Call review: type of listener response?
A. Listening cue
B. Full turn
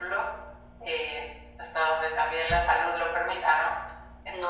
B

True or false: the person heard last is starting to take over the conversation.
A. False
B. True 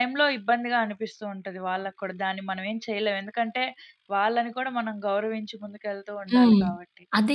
B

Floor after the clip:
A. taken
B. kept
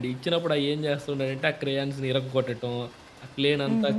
B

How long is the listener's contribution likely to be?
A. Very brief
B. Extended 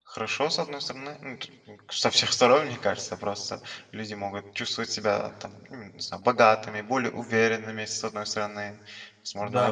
B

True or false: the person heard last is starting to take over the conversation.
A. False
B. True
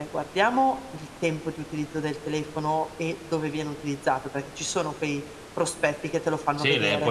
B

